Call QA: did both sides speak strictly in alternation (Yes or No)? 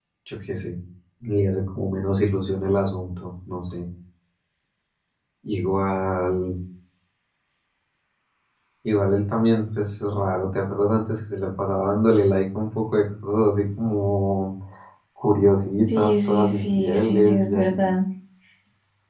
No